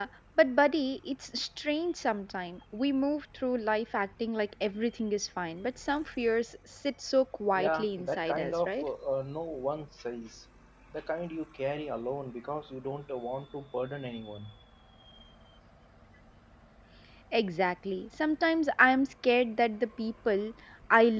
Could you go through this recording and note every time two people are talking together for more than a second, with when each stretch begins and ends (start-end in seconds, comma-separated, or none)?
7.5-8.9